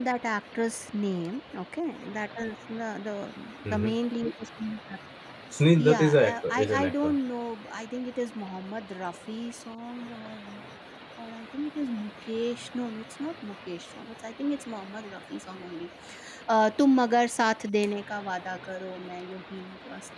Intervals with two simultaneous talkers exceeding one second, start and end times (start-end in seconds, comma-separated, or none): 5.8-7.1